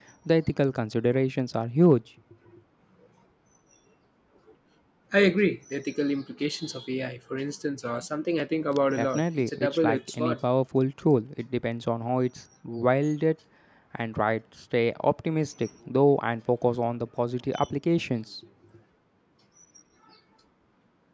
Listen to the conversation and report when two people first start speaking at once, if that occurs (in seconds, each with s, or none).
8.9 s